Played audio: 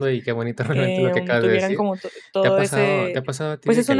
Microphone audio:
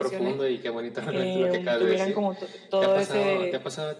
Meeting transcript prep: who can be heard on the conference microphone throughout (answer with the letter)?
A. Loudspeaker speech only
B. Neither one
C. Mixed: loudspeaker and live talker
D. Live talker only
A